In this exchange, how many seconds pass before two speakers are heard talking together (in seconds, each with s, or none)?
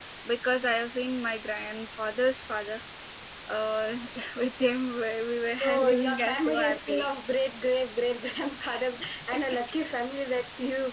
5.6 s